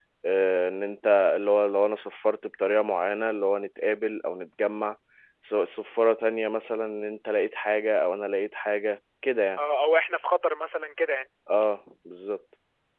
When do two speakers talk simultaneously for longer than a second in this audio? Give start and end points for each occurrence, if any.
none

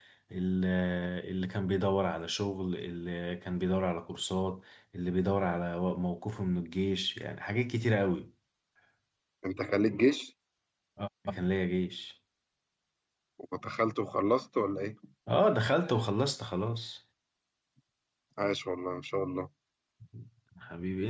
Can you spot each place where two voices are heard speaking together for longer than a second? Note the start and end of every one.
none

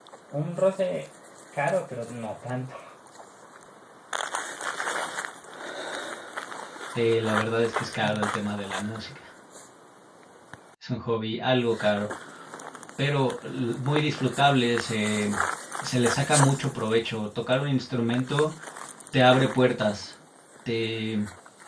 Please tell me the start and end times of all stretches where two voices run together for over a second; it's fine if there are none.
none

